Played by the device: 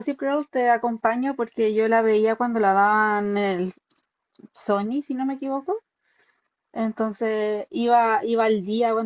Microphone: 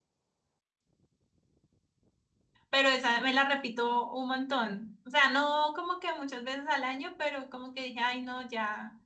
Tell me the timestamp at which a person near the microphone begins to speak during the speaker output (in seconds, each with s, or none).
2.7 s